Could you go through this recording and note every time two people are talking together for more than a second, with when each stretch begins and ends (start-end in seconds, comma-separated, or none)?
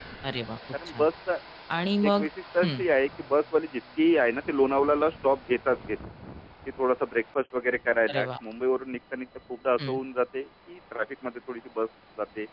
none